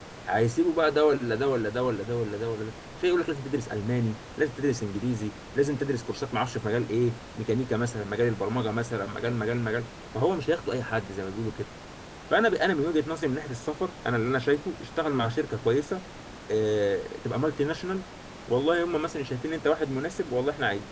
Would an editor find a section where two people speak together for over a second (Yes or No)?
No